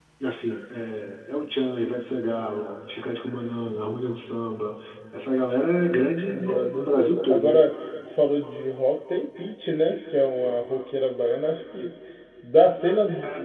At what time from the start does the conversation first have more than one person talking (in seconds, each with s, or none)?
6.2 s